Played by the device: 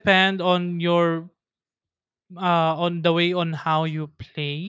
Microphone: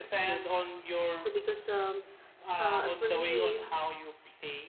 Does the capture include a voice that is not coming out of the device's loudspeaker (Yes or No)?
Yes